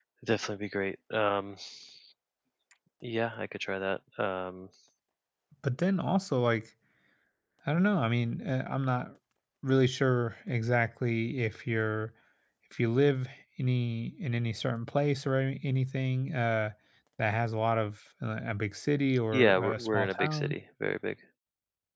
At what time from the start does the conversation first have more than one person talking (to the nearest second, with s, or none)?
19 s